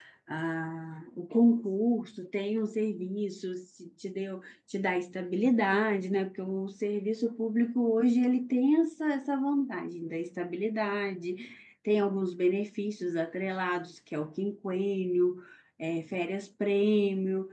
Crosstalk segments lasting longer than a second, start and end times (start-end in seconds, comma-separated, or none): none